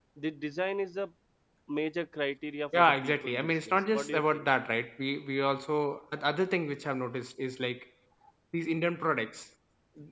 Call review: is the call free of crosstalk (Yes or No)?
No